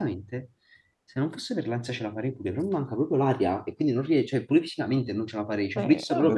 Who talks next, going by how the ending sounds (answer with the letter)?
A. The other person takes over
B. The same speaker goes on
A